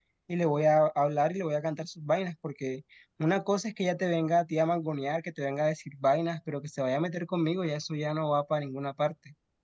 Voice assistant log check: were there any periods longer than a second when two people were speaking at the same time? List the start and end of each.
none

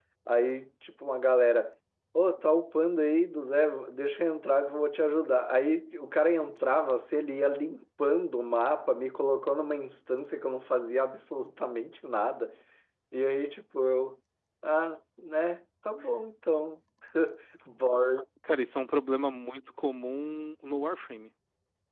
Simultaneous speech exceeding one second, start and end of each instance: none

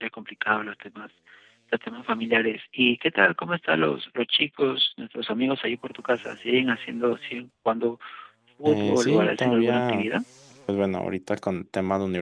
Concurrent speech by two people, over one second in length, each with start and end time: 8.7-10.1

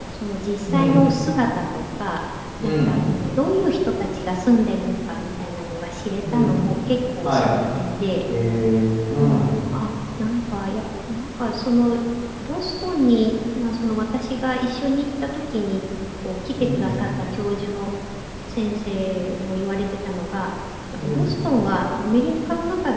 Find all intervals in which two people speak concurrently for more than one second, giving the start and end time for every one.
none

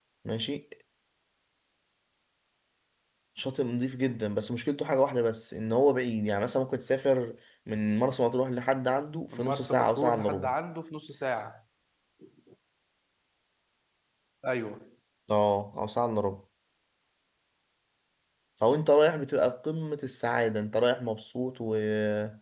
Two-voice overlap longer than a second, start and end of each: 9.3-10.5

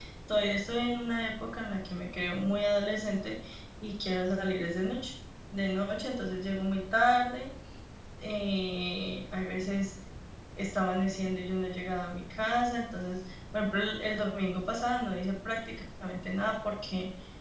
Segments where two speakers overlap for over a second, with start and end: none

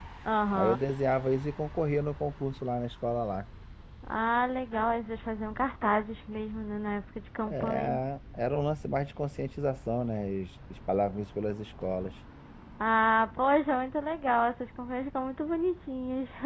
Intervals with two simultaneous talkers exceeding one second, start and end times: none

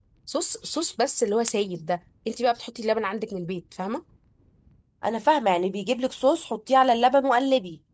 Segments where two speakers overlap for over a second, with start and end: none

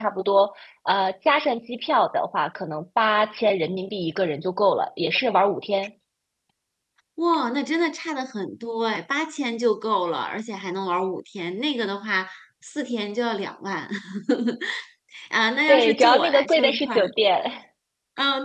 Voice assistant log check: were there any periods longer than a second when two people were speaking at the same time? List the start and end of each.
15.7-17.0

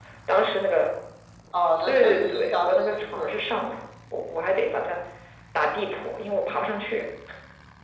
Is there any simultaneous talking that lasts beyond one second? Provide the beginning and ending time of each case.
1.8-3.4

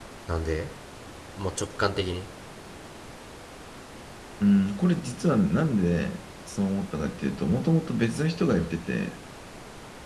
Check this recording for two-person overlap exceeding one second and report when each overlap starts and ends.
none

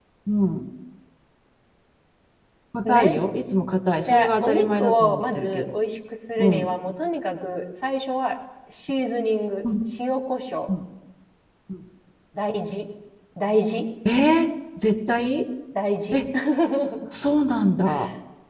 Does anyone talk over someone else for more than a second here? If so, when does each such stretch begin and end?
4.1-5.7

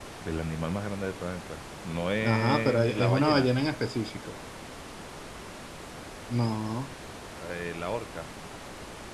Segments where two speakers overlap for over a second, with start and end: 2.2-3.5

